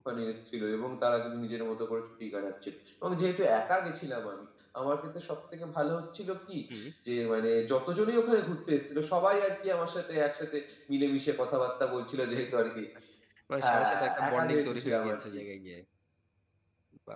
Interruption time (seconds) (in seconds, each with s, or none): 13.6 s